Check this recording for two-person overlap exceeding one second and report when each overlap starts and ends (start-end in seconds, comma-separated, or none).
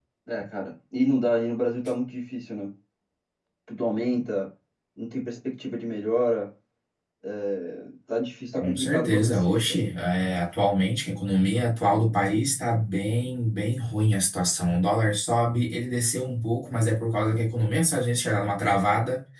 8.5-9.8